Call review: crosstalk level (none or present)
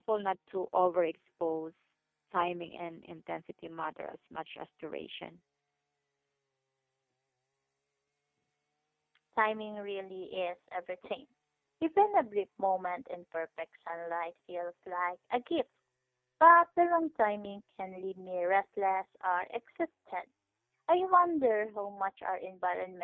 none